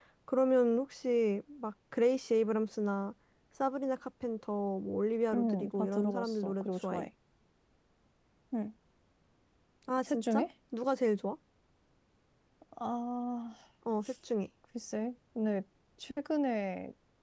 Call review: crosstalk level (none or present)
present